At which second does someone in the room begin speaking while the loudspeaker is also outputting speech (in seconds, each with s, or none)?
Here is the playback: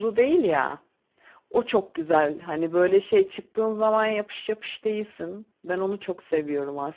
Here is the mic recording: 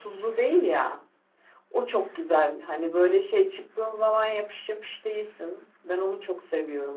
none